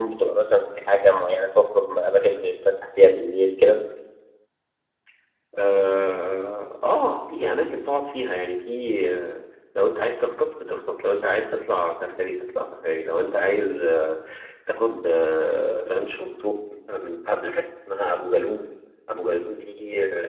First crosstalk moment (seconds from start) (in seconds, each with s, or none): none